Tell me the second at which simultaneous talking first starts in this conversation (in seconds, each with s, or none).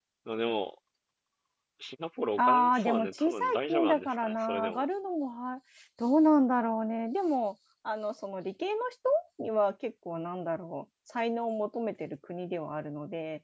2.4 s